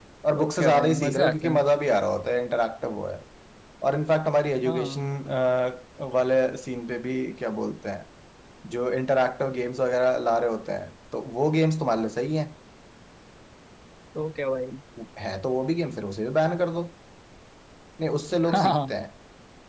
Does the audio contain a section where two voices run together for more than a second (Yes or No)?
Yes